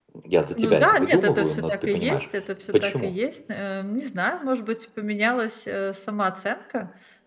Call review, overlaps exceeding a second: present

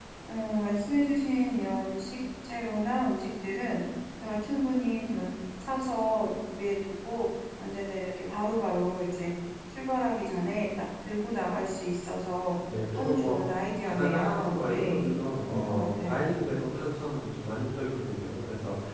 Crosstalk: present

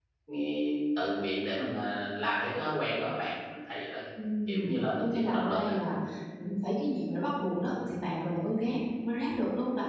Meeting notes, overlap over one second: present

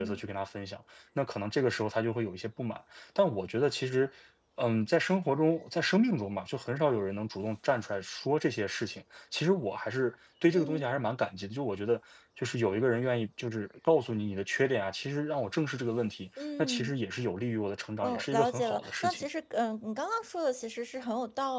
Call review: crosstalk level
present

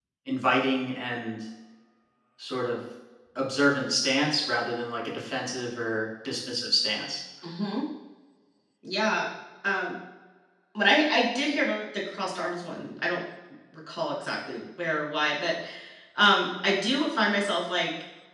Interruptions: none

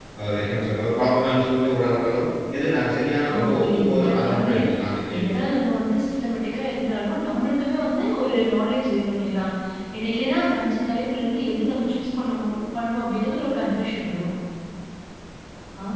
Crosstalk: present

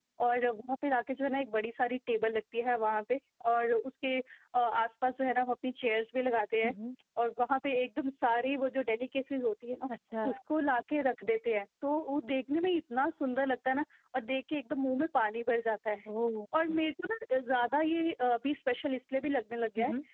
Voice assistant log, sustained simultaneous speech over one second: none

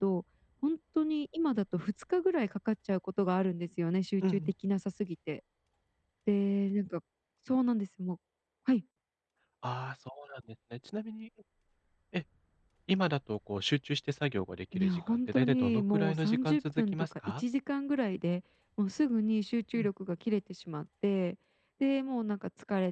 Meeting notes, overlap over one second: present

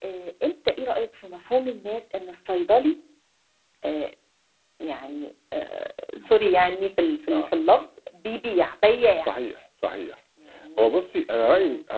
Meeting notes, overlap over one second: none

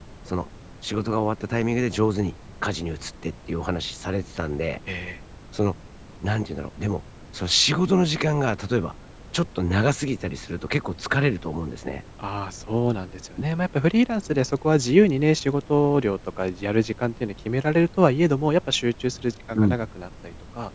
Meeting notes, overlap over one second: none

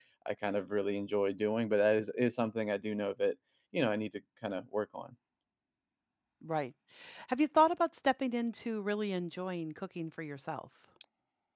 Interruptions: none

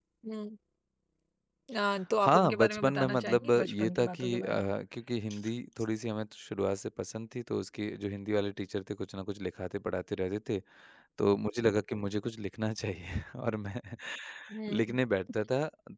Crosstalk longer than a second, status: present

